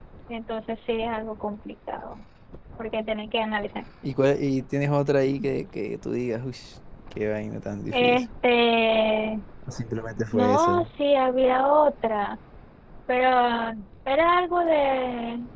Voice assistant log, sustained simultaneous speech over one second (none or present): none